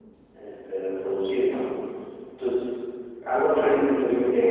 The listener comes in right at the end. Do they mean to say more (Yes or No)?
No